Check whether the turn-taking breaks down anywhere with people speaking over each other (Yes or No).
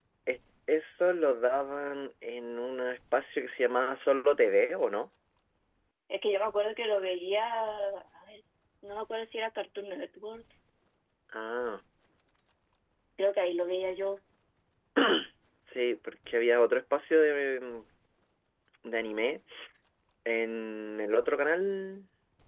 No